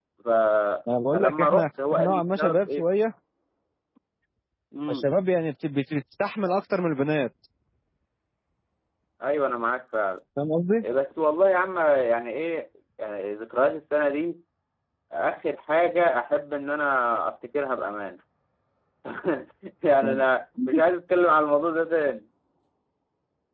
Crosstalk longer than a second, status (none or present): present